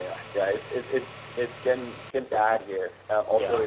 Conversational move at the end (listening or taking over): listening